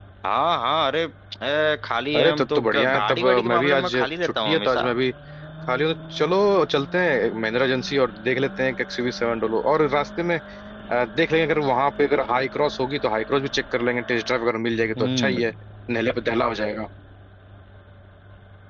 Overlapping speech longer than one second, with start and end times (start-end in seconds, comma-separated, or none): 2.1-4.9